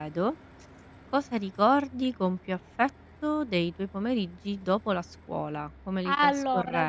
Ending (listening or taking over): taking over